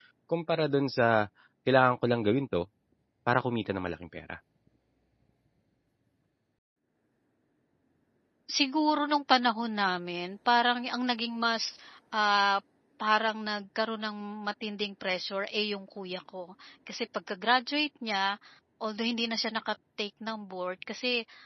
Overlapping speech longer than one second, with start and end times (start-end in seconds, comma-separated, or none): none